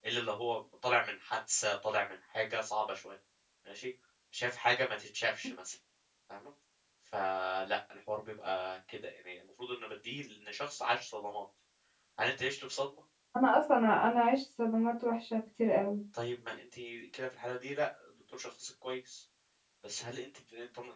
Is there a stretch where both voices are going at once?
No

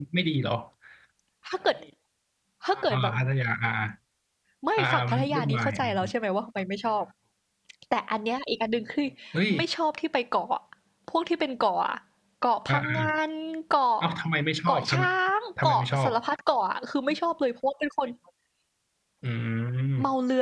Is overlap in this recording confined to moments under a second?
No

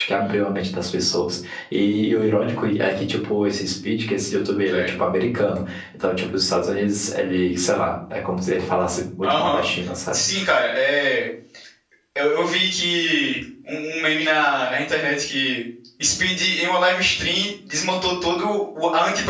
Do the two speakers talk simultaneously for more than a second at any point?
No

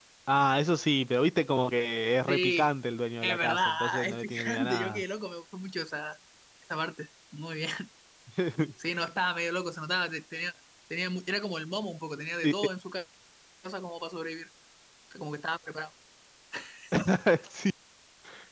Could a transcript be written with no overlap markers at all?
No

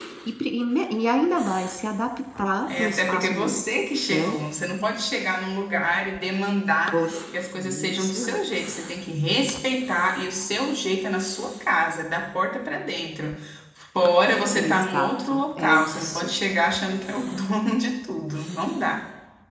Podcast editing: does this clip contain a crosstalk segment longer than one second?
Yes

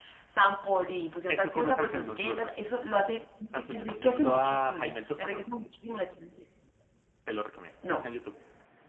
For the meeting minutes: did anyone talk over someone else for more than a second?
Yes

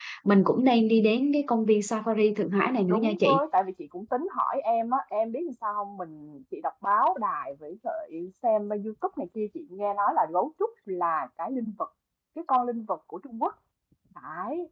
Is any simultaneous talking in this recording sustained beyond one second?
No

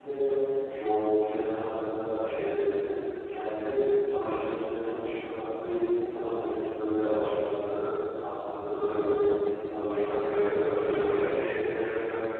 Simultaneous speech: Yes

